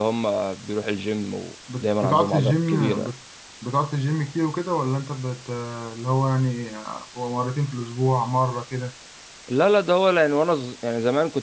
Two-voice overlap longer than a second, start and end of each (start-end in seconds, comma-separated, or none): 1.8-3.1